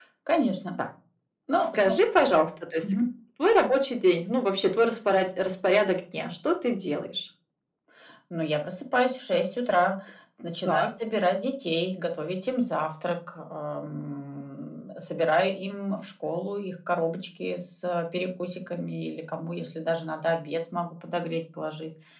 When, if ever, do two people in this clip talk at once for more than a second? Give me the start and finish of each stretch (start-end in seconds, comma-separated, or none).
none